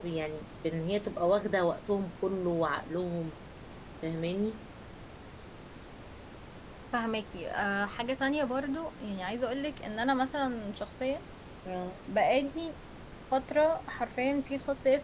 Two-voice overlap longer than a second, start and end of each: none

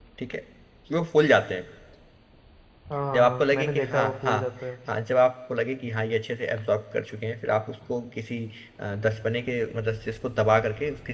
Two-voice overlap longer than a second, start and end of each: 3.1-4.4

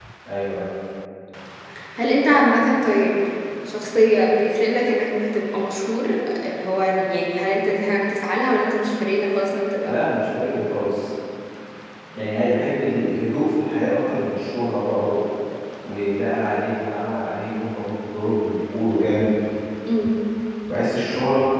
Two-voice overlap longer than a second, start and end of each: none

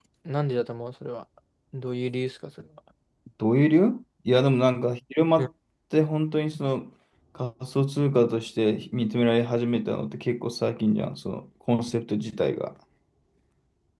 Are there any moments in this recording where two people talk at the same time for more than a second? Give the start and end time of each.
none

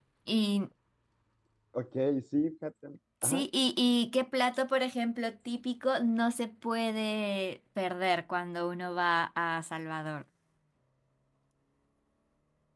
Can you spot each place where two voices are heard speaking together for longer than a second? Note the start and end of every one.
none

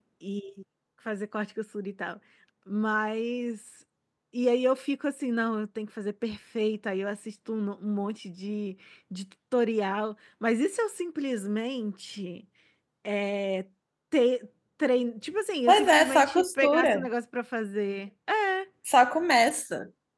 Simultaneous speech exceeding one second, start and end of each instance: 15.7-17.1

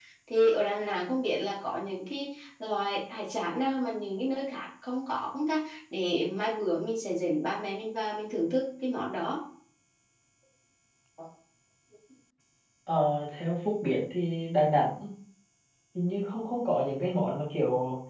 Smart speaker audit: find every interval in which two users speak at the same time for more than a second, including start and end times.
none

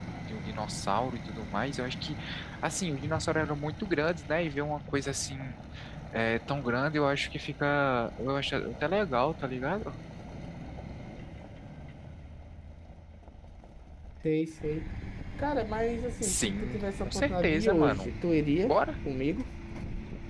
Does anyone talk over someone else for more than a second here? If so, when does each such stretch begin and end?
16.2-18.1

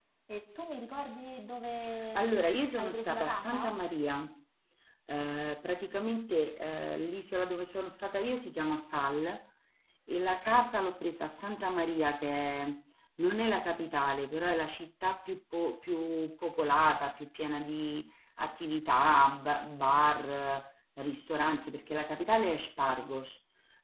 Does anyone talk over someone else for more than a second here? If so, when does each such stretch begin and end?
2.1-3.7

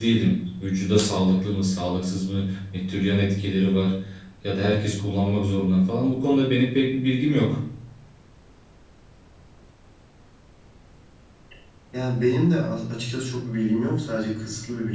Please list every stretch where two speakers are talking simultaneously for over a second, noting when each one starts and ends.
none

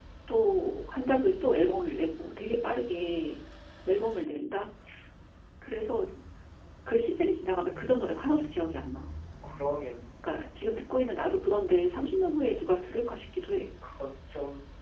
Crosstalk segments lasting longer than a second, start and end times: none

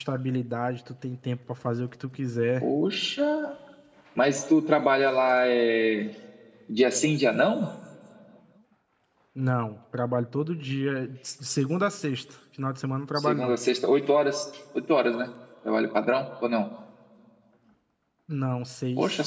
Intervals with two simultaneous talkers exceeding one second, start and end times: none

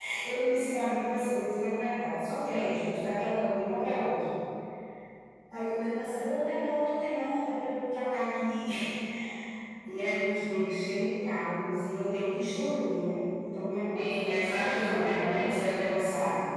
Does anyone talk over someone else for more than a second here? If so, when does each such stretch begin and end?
14.0-15.9

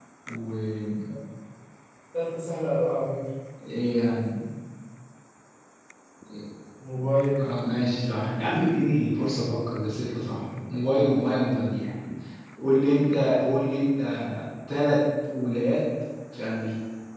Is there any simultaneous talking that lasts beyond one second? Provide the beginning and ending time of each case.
none

